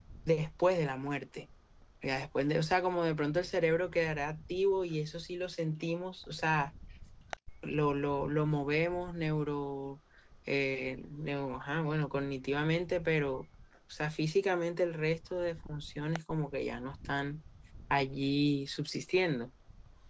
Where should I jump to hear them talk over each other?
none

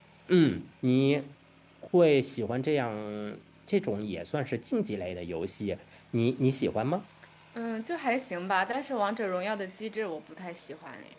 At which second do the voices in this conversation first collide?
none

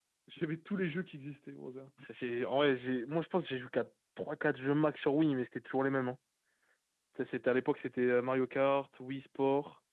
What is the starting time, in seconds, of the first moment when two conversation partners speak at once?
none

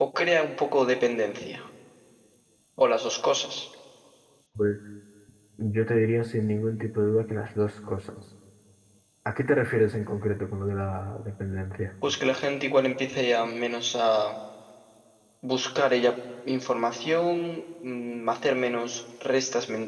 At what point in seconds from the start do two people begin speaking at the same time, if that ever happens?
none

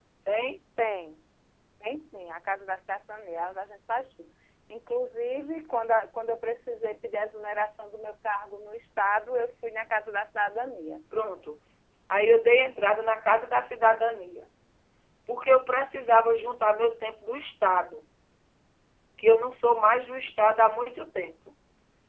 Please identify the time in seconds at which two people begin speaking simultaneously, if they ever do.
none

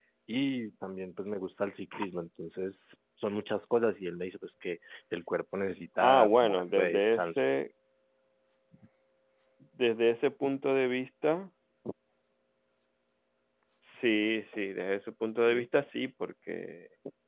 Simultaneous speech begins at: 6 s

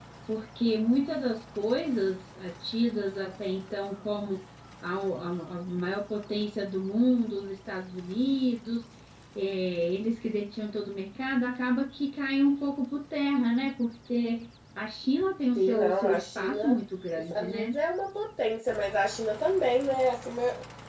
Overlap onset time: 16 s

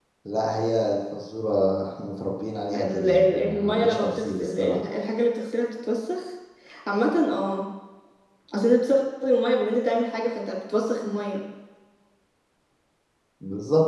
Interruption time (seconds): 3 s

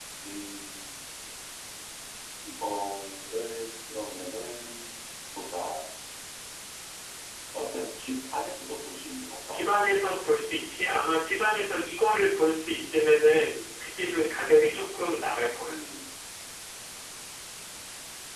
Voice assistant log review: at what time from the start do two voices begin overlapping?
none

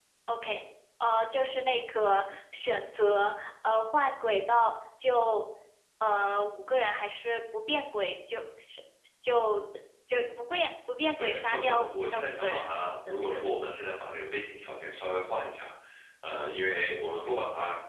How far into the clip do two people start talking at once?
11 s

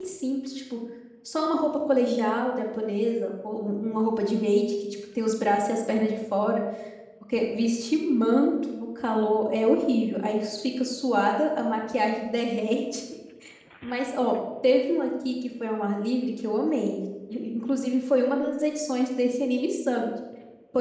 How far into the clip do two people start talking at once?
none

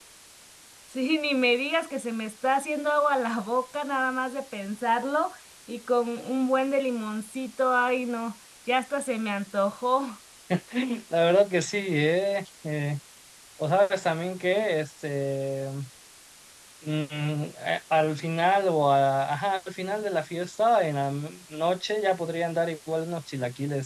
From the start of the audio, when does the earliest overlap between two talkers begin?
none

